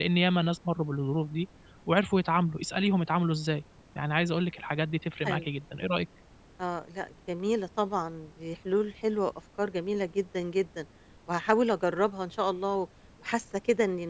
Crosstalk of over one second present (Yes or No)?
No